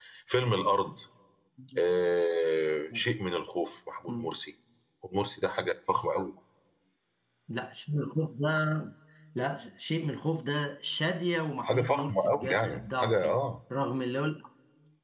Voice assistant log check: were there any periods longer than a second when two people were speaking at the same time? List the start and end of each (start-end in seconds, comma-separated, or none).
11.6-13.4